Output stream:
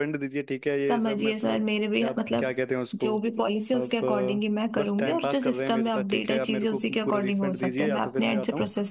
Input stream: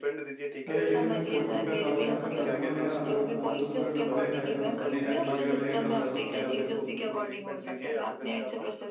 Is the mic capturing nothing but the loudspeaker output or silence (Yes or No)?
No